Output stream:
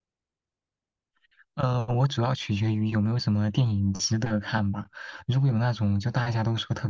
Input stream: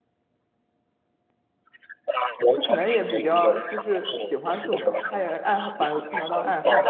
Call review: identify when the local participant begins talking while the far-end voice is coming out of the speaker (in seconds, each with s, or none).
2.5 s